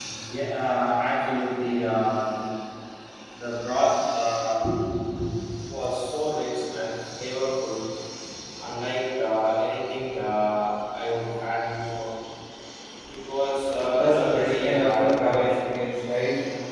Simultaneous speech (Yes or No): Yes